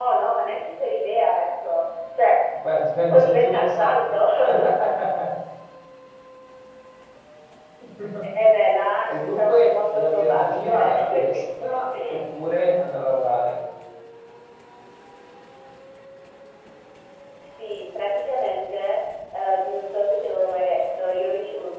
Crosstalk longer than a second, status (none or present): present